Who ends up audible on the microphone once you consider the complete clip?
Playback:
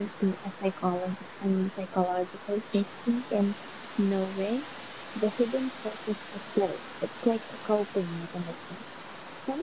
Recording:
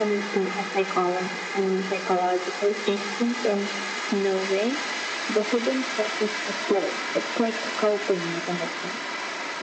echo only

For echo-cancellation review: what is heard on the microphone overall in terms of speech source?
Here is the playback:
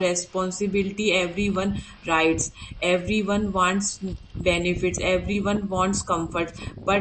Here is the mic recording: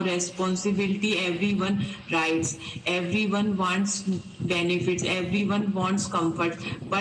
echo only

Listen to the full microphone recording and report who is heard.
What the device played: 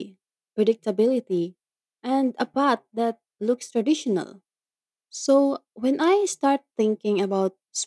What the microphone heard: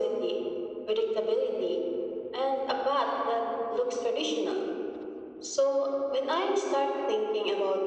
echo only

